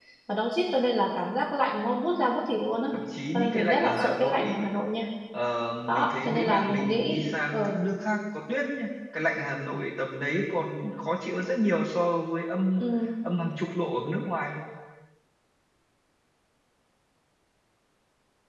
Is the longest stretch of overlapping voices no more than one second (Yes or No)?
No